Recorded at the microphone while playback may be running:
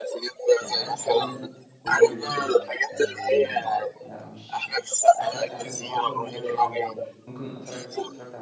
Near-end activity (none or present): present